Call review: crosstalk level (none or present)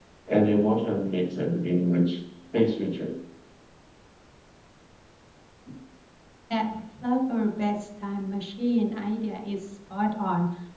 none